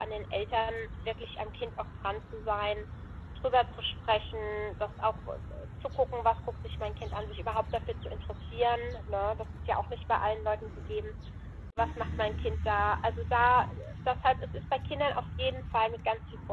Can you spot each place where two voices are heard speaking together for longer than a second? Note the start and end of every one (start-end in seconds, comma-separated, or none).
none